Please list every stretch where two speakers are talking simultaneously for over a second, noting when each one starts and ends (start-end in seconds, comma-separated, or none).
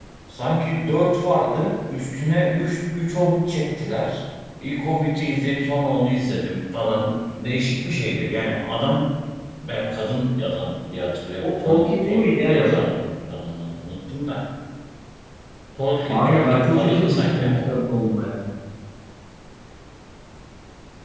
11.4-12.8, 16.1-17.7